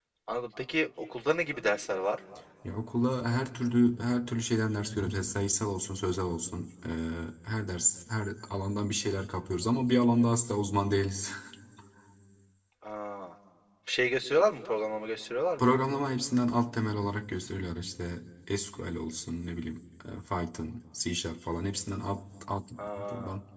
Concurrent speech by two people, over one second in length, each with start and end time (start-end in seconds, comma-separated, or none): none